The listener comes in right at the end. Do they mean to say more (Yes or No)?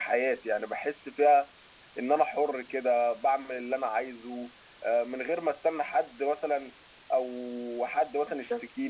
No